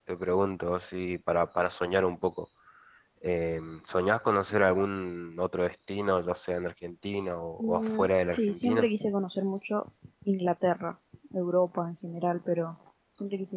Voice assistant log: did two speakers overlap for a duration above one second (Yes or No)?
Yes